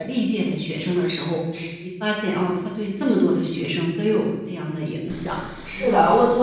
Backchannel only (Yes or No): No